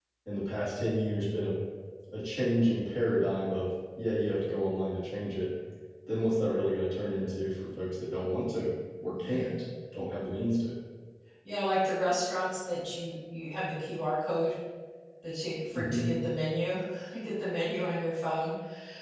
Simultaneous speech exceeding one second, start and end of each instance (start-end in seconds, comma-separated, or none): none